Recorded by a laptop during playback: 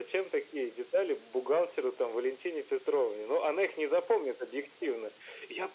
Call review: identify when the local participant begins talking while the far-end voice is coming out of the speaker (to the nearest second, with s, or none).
none